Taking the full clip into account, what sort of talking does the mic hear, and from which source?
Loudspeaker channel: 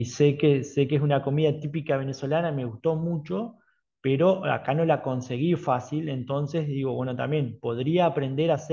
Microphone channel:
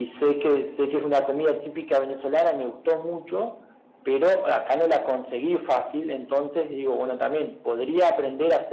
echo only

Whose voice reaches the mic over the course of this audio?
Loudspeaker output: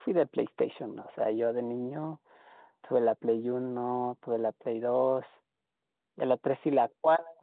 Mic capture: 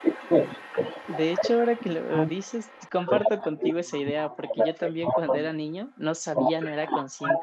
both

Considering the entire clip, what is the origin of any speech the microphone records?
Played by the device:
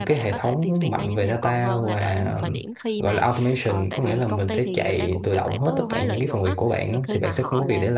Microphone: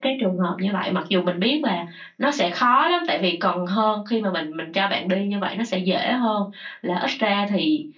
user only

